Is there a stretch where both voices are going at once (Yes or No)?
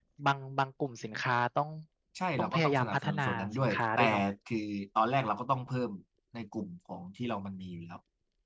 Yes